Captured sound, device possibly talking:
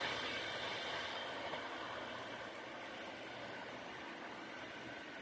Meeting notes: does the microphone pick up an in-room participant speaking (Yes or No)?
No